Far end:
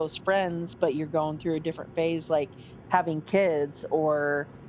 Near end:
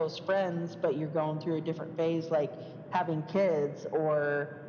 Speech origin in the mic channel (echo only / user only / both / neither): echo only